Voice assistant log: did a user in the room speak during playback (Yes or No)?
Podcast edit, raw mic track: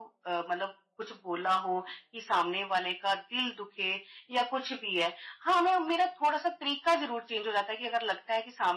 No